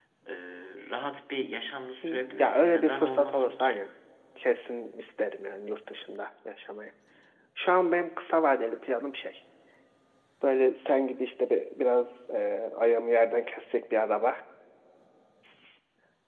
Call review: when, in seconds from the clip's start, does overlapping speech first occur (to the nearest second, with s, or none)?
2 s